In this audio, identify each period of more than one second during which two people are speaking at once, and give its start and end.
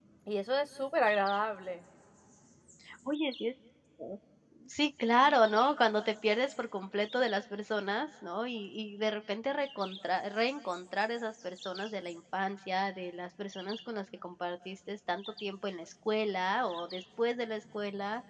none

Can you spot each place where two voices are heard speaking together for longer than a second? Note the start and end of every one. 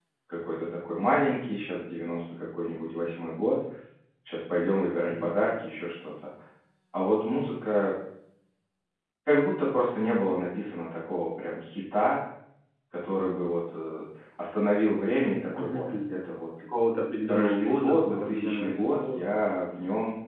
17.3-19.2

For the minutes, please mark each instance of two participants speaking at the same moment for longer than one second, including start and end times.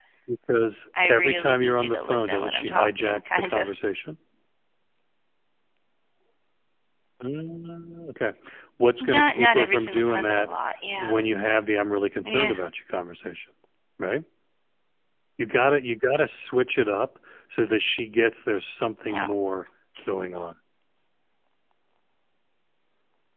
1.1-3.8, 9.0-10.5

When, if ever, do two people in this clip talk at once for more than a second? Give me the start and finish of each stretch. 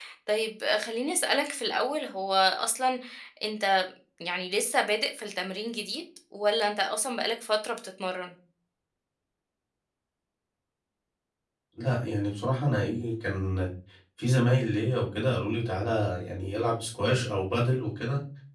none

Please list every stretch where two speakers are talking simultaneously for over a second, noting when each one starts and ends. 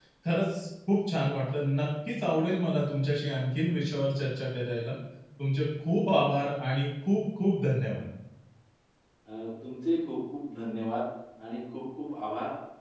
none

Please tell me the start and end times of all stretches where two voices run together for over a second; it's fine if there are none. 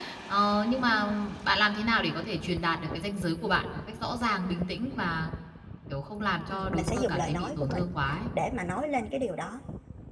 6.5-7.8

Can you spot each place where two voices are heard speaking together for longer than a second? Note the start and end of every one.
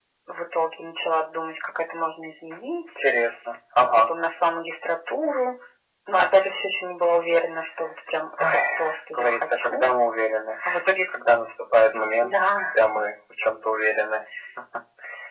8.4-9.9

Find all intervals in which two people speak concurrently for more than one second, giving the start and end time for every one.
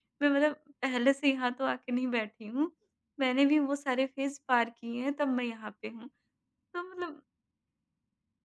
none

